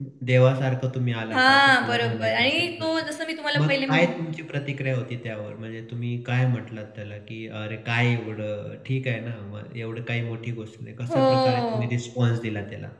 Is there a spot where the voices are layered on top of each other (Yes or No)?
Yes